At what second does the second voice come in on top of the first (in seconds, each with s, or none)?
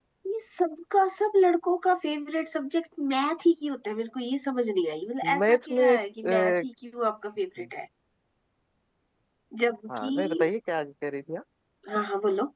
5.4 s